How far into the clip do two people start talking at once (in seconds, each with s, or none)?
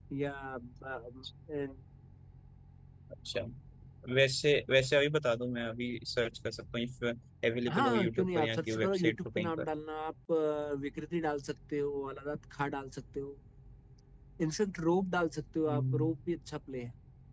7.7 s